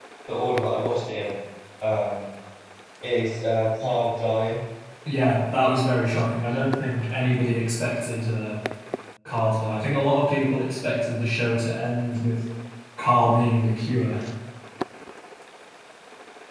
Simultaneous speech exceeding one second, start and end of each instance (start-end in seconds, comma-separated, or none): none